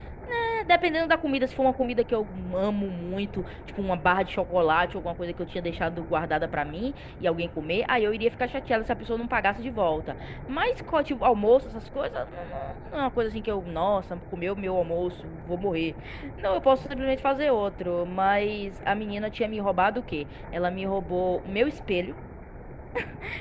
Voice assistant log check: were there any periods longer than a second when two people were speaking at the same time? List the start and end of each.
none

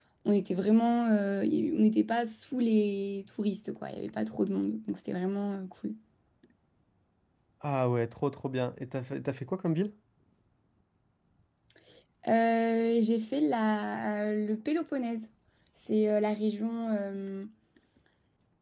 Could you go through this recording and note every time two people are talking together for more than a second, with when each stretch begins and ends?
none

